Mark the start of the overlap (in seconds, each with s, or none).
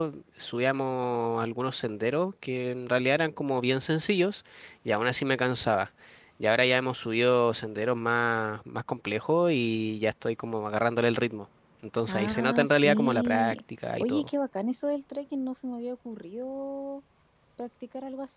12.1 s